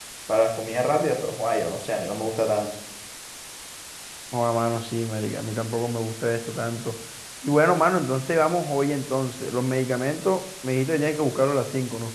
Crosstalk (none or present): none